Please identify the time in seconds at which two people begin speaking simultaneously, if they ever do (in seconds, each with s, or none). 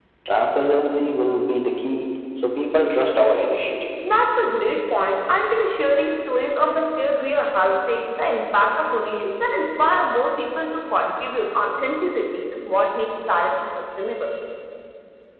none